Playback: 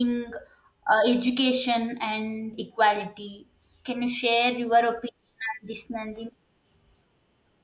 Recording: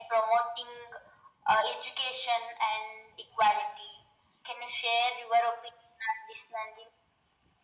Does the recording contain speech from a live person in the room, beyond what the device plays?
No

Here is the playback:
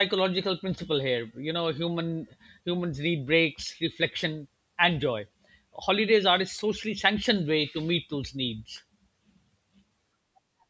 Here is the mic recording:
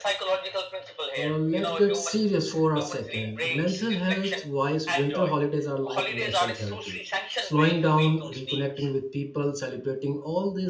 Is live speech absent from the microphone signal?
No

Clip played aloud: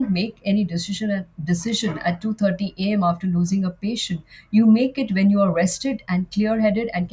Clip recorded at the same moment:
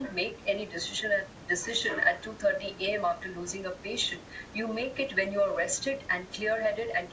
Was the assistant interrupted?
No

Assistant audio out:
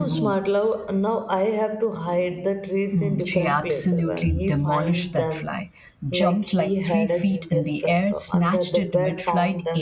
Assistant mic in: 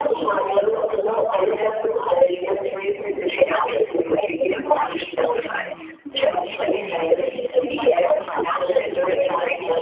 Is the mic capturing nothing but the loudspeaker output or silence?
No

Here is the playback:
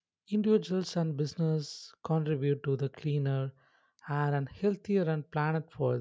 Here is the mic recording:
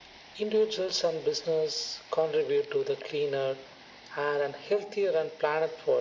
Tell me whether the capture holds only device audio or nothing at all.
Yes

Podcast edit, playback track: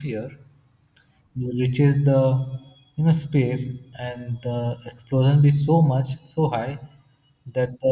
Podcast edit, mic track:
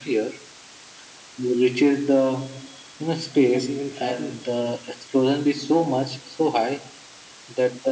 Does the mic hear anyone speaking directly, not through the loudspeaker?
Yes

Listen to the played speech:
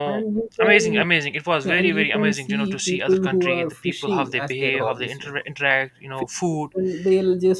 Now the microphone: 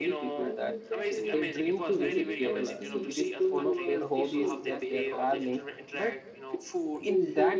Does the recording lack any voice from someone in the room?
No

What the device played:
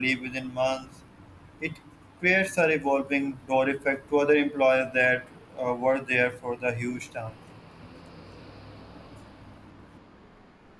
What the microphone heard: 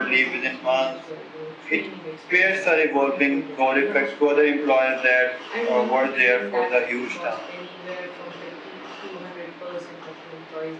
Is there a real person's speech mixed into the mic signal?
Yes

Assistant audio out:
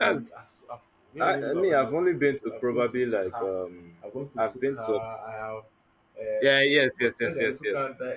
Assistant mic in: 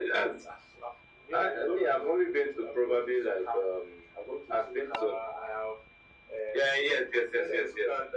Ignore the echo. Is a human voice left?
No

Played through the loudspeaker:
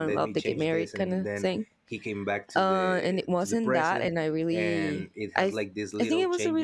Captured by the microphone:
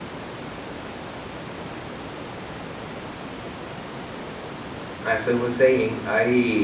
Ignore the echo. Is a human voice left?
Yes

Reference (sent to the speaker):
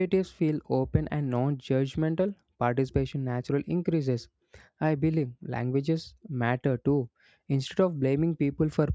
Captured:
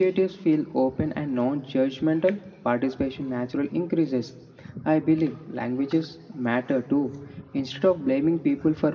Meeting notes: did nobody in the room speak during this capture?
Yes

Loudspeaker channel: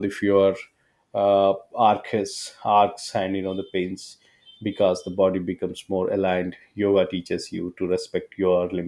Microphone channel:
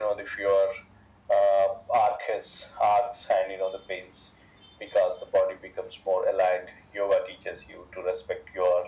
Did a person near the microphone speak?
No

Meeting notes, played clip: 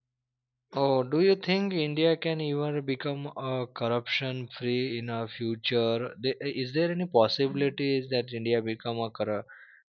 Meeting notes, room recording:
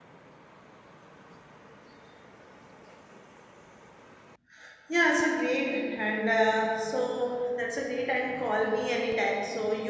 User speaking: Yes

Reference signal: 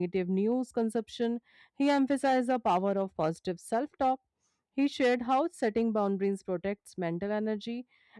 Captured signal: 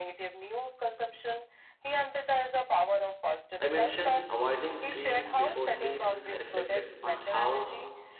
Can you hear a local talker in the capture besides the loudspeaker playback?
Yes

